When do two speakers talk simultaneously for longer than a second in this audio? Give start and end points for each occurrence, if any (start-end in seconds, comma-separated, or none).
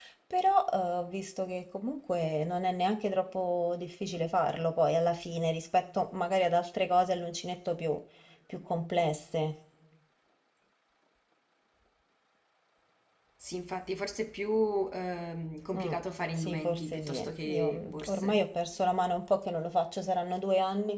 16.4-18.4